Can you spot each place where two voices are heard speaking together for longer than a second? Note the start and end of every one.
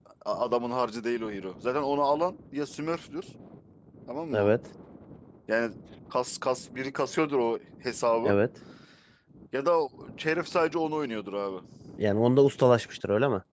none

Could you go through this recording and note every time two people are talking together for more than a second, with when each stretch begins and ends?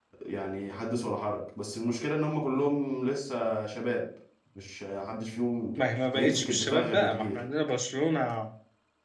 6.1-7.4

